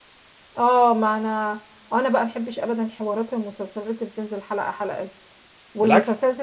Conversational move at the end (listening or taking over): listening